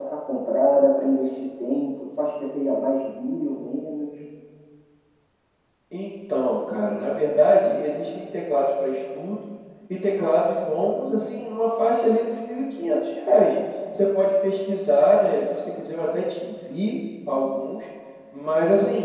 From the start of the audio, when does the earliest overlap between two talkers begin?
none

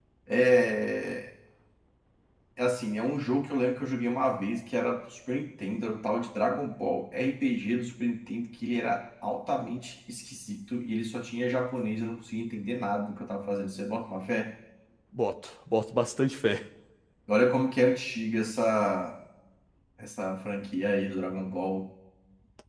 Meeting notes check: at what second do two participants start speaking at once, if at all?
none

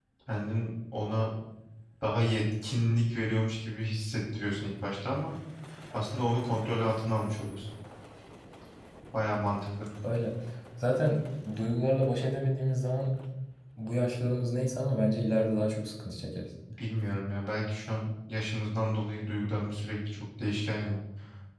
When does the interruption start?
none

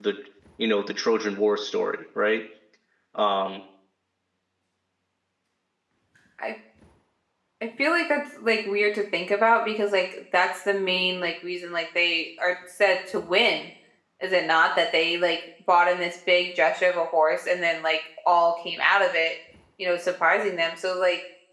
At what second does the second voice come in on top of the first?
none

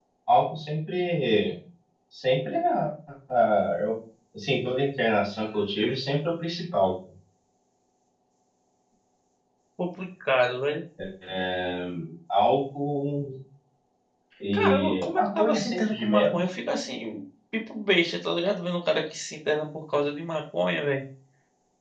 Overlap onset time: 14.5 s

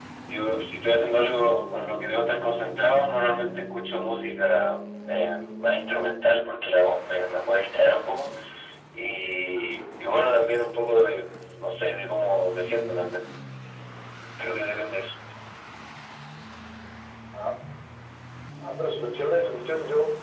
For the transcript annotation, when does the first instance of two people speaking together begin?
none

